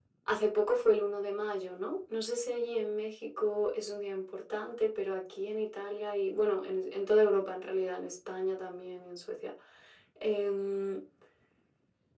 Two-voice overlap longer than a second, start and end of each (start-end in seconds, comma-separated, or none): none